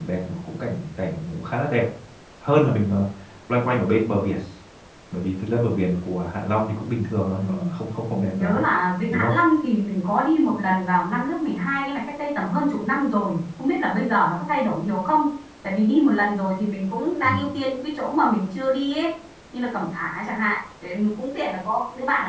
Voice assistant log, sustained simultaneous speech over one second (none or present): none